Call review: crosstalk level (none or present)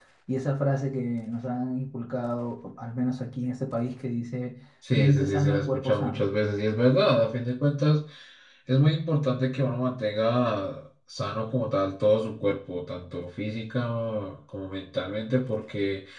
present